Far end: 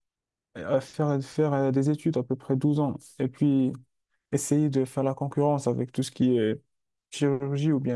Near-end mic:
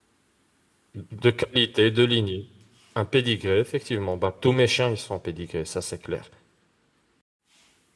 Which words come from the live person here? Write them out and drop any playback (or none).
De qualité, de lignée. Un pédigré, effectivement. Bah, tous mes chiens, ils sont pédigrés, ça c'est clair.